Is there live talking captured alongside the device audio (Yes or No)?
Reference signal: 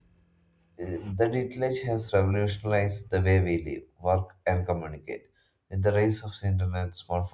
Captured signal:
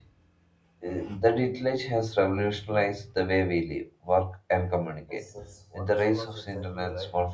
Yes